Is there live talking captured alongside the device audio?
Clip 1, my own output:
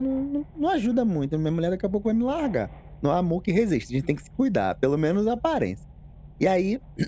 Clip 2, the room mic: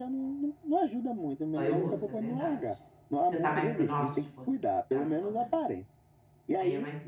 Yes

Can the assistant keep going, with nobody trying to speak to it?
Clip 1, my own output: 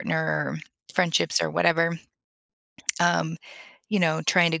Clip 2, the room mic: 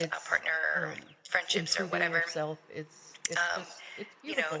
No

